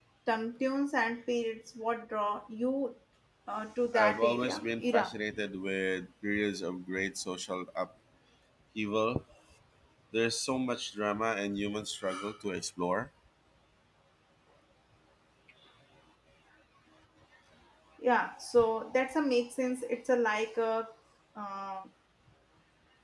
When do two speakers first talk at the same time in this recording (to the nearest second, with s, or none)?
4 s